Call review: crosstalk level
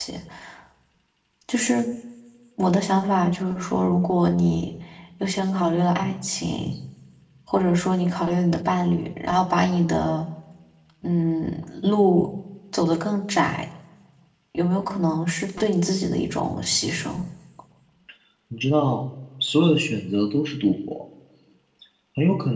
none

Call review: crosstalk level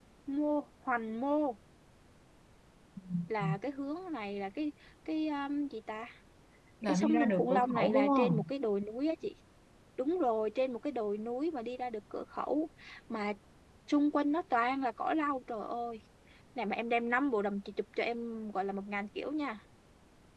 present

